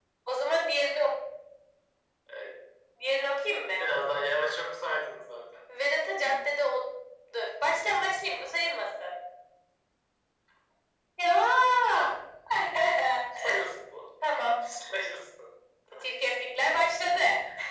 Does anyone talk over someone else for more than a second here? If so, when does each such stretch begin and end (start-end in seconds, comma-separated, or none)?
none